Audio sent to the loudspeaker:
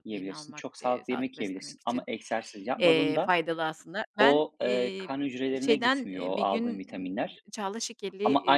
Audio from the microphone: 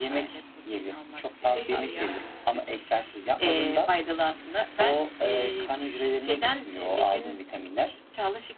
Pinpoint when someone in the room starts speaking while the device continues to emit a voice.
1 s

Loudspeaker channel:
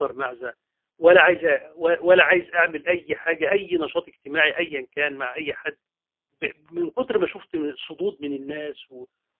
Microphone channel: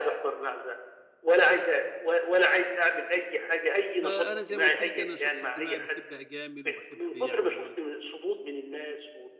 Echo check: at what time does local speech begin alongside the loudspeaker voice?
4 s

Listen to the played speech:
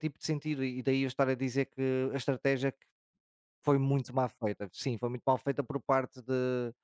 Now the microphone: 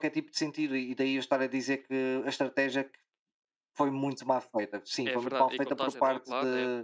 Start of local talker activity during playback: 5 s

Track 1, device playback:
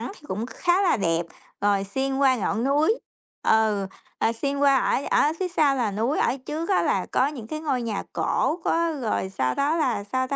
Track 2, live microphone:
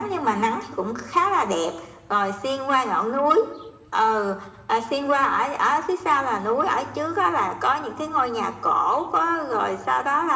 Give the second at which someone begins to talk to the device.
none

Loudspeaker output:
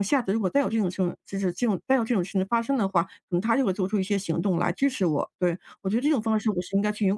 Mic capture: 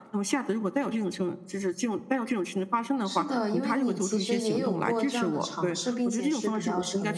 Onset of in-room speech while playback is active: 3 s

